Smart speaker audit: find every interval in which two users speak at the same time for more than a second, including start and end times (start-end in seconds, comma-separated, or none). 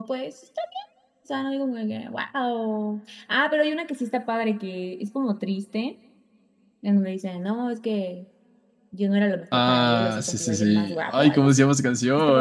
9.7-11.7